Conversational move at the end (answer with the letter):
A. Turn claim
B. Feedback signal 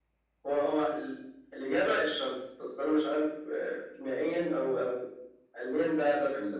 A